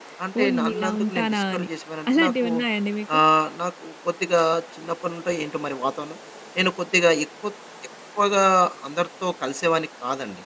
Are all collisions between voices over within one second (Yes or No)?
No